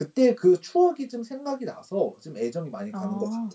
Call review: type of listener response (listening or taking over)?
taking over